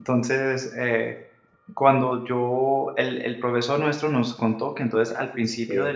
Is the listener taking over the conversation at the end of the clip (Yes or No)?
No